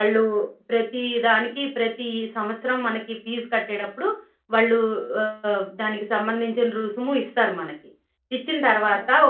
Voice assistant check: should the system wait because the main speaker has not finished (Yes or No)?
Yes